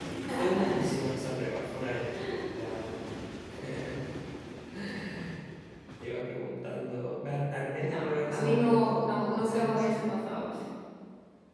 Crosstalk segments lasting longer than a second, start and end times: 7.8-10.1

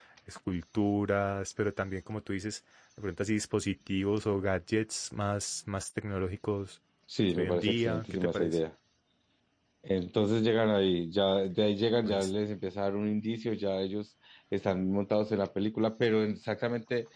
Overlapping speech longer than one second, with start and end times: 7.3-8.6

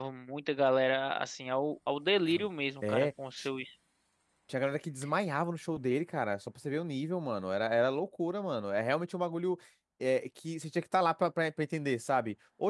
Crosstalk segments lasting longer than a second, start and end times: none

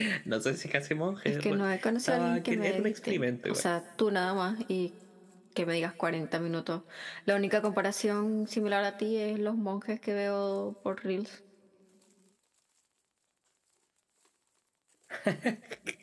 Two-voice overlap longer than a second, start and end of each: 1.3-3.7

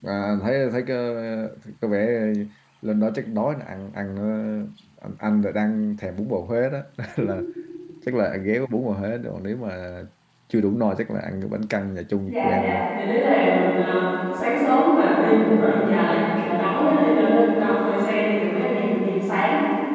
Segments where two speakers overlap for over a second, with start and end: none

